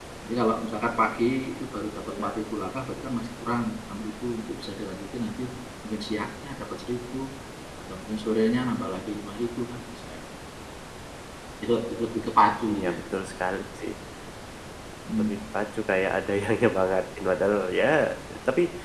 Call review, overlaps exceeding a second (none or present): none